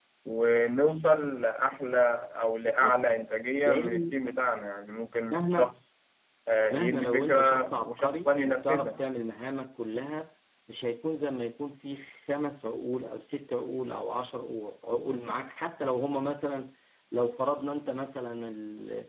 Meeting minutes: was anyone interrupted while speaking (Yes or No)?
Yes